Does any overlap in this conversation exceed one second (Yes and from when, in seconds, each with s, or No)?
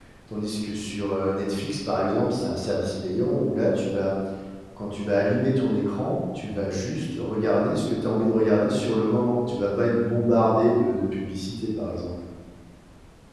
No